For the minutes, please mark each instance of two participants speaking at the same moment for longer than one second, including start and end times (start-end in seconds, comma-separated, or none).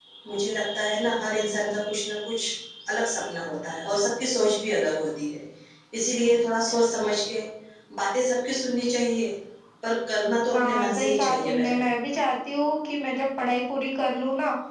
10.5-11.8